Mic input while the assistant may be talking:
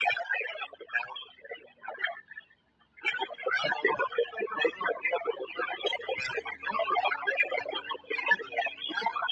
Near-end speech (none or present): none